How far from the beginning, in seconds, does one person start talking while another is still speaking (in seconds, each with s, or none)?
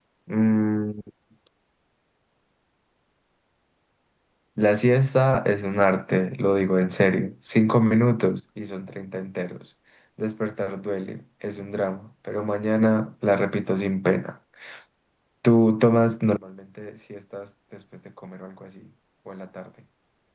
none